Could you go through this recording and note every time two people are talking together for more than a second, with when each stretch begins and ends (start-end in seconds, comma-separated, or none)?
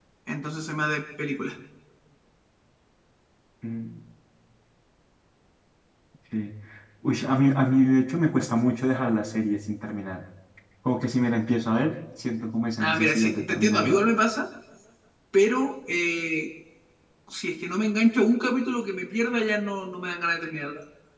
12.8-14.0